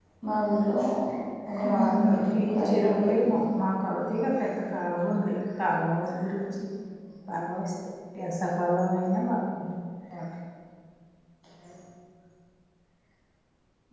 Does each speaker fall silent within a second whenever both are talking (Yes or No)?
No